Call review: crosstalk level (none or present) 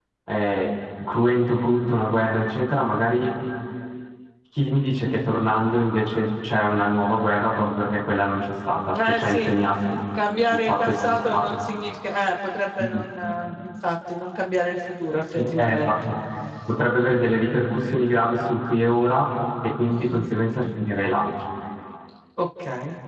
present